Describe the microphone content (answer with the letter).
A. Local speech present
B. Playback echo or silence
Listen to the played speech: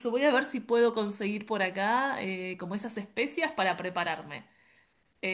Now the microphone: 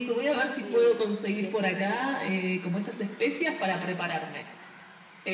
A